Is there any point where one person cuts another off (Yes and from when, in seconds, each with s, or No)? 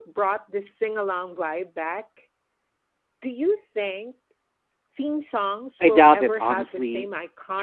Yes, from 5.8 s